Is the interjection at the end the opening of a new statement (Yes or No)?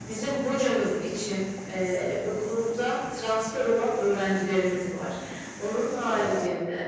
No